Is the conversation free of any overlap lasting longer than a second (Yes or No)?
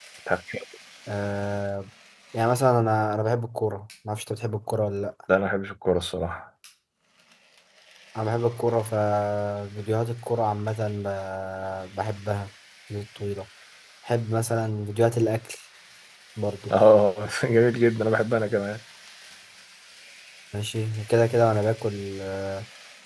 Yes